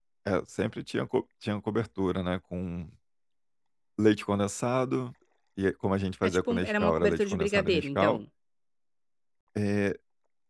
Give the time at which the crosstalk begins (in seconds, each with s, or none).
6.3 s